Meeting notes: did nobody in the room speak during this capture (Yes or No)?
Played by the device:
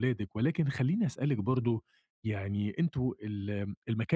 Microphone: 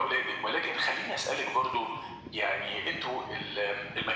Yes